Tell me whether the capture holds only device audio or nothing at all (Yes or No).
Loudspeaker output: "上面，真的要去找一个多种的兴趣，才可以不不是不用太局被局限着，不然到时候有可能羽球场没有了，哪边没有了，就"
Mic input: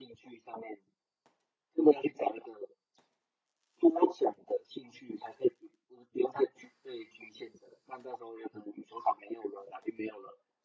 Yes